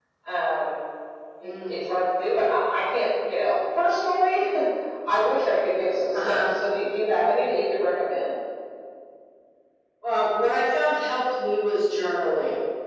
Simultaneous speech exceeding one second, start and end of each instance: none

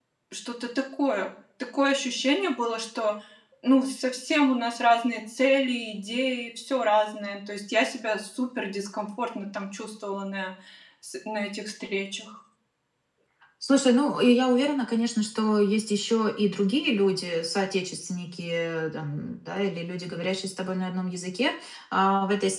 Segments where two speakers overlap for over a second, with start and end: none

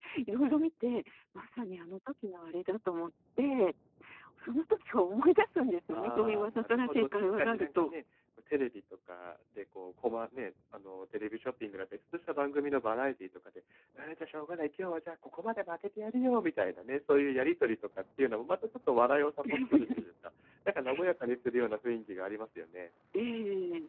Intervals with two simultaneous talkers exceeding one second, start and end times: 5.9-7.9

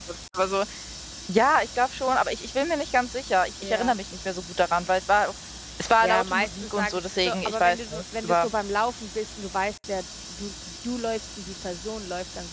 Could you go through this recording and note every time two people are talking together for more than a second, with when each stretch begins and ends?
6.0-8.4

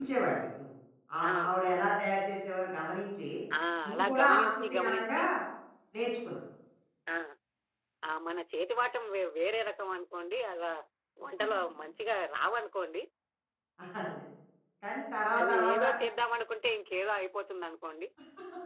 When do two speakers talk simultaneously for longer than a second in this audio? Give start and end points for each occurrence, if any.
3.9-5.2

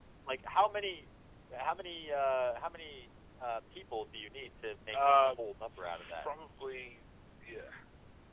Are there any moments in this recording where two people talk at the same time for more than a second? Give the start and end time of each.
none

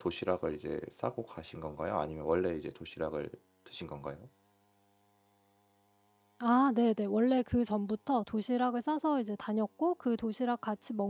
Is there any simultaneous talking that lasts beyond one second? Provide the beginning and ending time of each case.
none

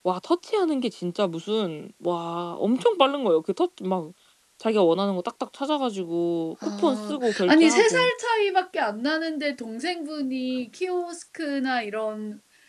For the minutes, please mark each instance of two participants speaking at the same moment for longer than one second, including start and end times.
6.6-8.1

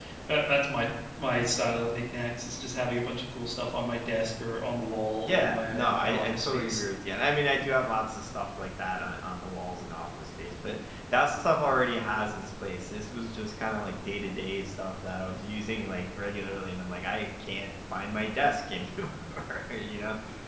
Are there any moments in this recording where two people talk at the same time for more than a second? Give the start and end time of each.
5.2-6.8

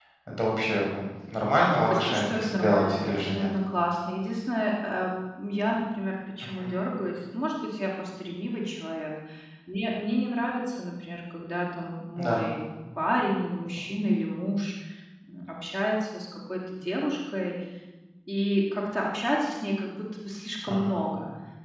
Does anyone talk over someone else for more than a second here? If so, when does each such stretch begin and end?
1.7-3.5

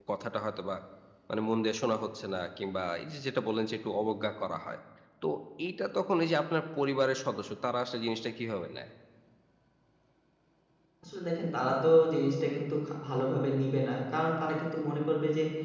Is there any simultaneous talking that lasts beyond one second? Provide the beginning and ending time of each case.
none

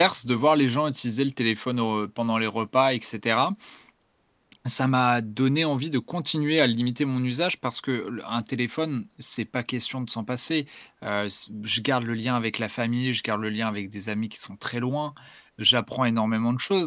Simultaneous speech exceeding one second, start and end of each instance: none

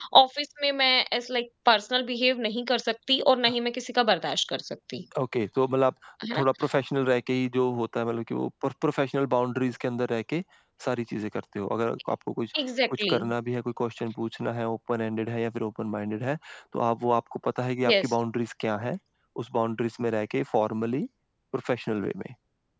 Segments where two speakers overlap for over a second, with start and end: none

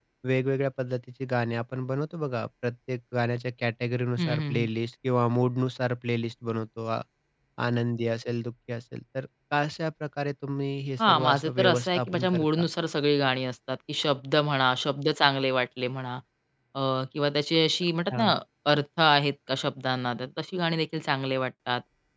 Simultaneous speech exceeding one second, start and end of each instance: 11.0-12.6

